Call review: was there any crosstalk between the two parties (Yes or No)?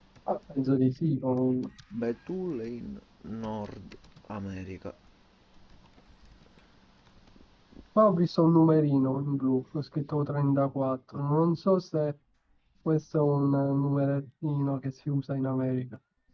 No